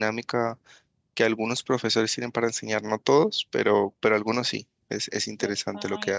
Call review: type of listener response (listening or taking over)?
taking over